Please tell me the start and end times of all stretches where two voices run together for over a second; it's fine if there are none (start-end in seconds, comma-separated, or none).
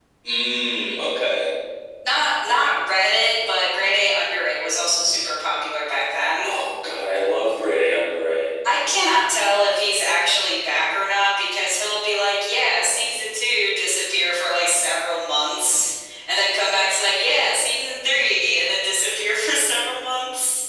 none